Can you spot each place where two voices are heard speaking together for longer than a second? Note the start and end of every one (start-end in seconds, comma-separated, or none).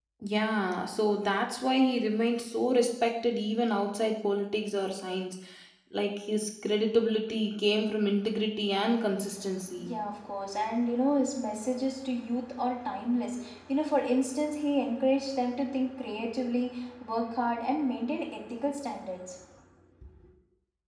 none